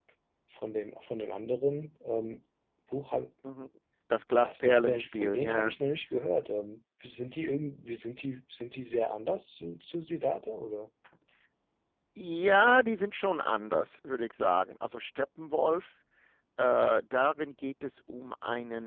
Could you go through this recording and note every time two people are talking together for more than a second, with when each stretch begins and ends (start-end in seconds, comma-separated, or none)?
4.4-5.8